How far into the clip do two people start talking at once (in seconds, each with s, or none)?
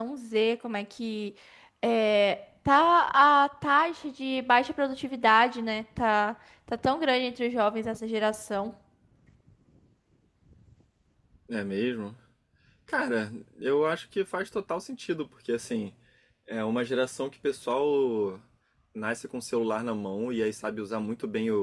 none